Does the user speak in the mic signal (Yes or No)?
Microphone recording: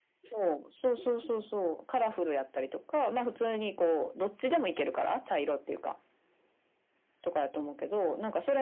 No